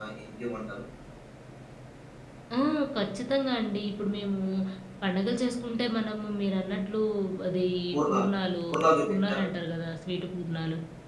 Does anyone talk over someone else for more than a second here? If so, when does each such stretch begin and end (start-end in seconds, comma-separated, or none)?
none